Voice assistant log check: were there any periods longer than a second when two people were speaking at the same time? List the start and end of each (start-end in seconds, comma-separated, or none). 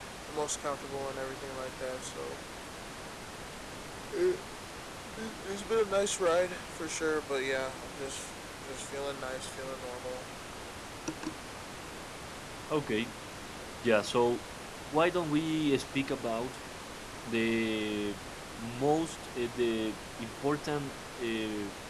none